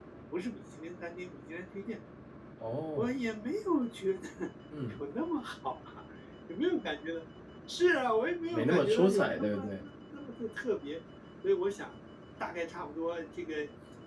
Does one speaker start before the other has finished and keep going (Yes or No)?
Yes